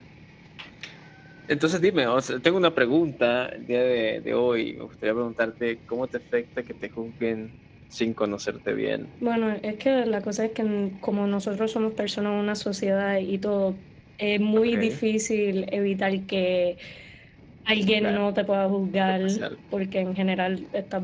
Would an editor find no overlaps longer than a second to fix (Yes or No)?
Yes